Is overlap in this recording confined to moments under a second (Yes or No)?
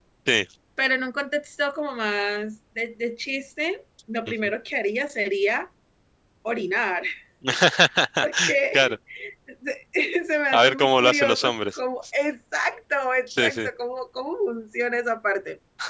No